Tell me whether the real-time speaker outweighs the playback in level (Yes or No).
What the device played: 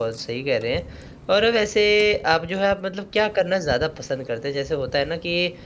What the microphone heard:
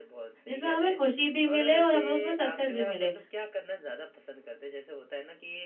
Yes